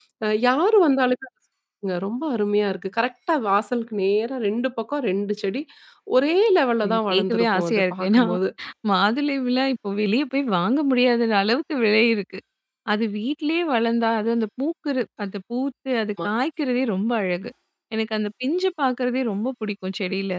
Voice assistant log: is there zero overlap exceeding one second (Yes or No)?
No